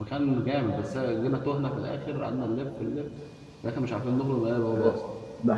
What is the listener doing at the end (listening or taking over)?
taking over